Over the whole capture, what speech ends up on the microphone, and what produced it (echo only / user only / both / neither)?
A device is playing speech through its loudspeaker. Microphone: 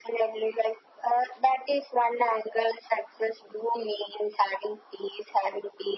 echo only